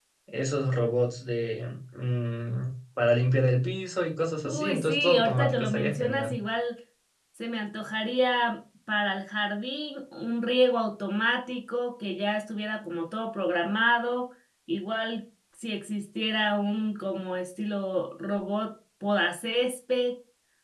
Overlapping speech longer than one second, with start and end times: 4.5-6.3

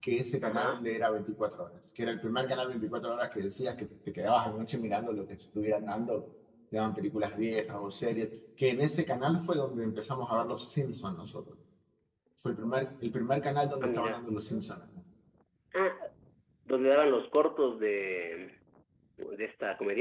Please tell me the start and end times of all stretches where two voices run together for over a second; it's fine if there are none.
none

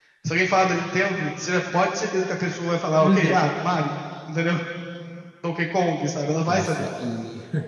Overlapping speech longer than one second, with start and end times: none

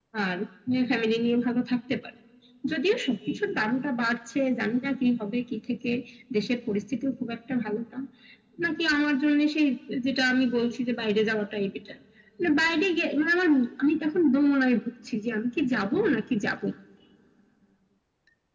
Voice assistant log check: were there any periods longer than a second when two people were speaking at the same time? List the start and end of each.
none

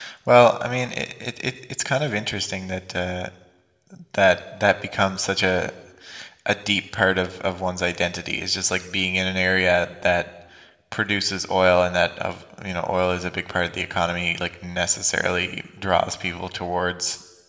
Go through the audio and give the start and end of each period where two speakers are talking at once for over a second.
none

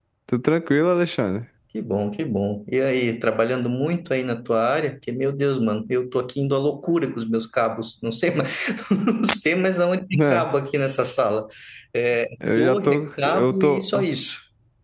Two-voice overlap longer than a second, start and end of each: 12.6-13.8

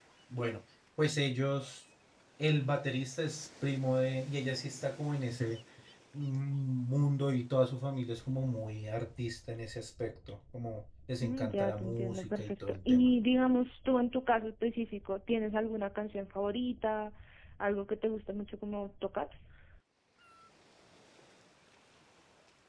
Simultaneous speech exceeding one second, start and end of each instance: 11.2-13.1

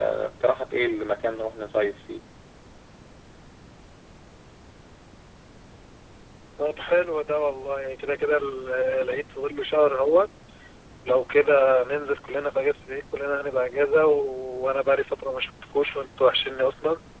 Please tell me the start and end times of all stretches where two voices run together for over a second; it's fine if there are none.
none

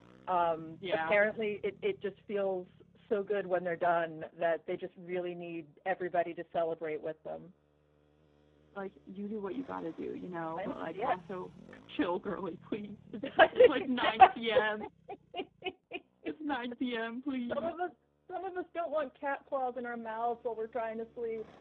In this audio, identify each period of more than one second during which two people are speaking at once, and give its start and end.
13.2-14.8

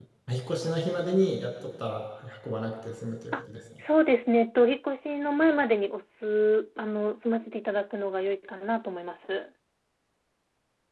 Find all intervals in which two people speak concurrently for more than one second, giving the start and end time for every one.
none

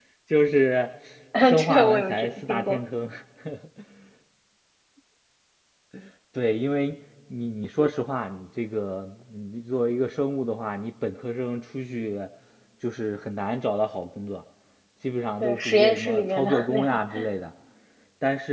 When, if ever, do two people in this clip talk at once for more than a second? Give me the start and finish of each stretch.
1.6-2.8, 15.4-17.0

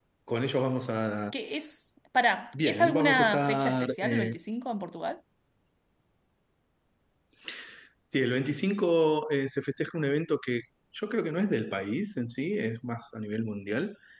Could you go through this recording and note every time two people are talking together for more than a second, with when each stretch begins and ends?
2.6-4.3

